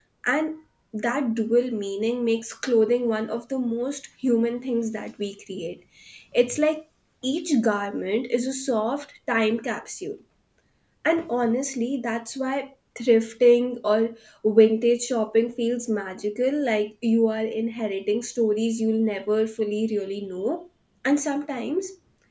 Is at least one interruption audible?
No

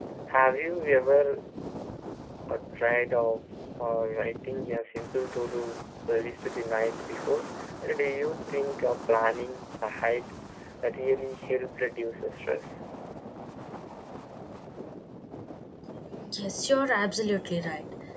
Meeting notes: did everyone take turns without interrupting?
Yes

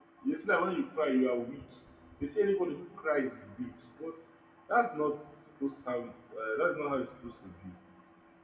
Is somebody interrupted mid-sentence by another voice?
No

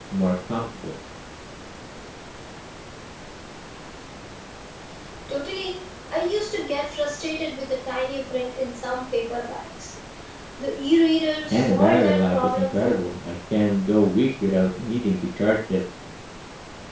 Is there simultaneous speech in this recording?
Yes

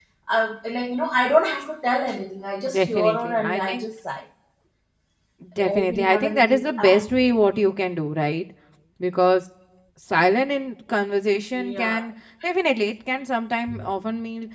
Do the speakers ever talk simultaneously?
Yes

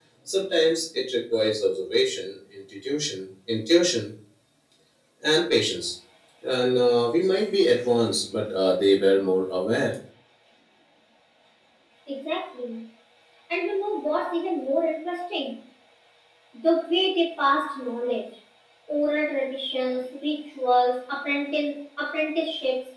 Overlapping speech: No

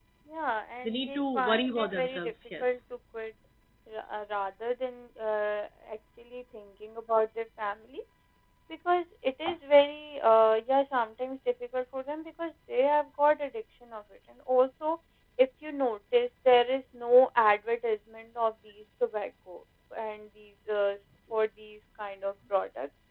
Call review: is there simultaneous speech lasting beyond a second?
Yes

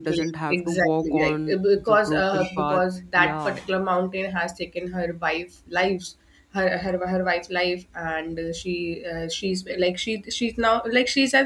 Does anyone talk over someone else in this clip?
Yes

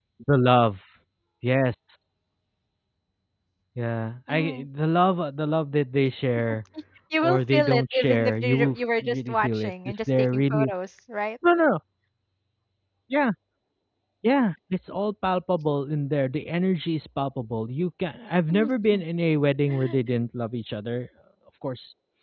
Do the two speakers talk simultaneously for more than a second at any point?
Yes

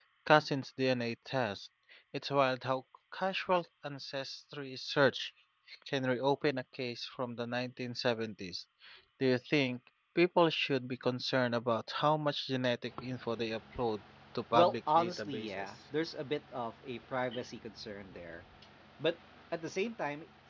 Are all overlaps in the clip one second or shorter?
No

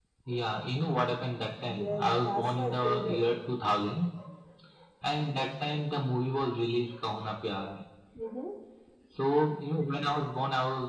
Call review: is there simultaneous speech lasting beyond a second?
Yes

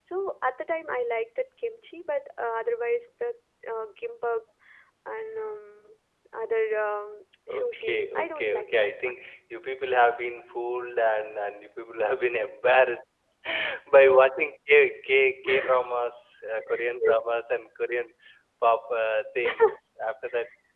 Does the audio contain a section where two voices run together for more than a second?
Yes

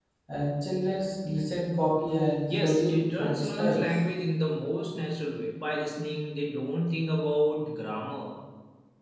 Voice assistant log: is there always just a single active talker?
No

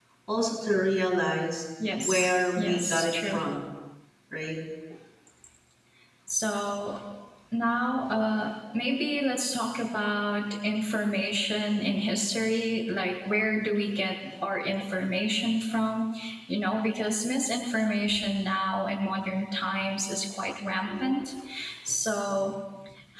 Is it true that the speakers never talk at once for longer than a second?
No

